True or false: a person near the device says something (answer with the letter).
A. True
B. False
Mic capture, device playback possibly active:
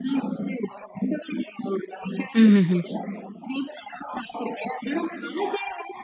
A